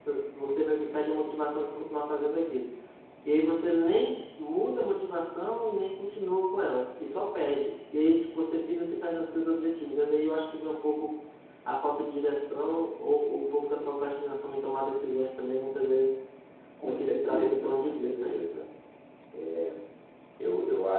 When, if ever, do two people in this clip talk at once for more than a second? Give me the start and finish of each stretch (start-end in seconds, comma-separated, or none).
16.8-18.3